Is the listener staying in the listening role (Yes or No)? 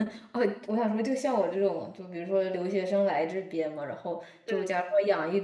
Yes